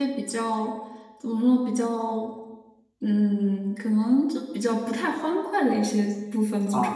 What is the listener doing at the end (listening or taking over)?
taking over